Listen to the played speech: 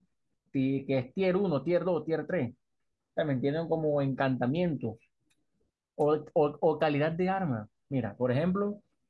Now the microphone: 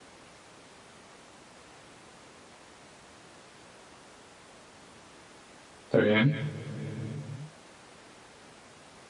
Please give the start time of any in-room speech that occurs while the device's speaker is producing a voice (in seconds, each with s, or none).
5.9 s